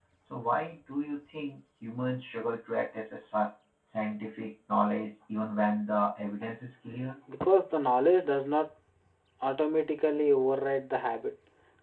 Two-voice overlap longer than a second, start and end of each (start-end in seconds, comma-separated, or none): none